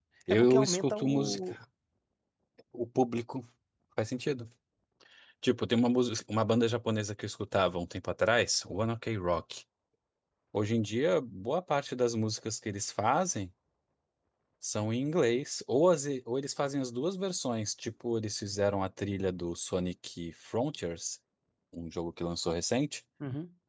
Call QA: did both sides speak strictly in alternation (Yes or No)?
No